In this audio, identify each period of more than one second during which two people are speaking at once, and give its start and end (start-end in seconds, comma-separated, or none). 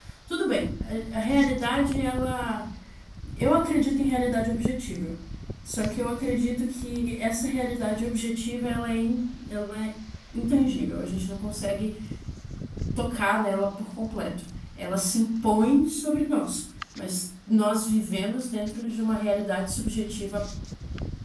none